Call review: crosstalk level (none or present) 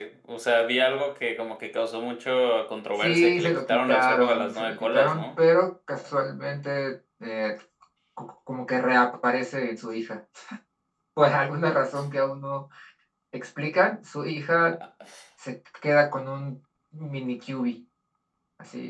present